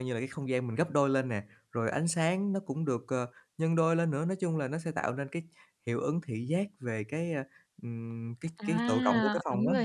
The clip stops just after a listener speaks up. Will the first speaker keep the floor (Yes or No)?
No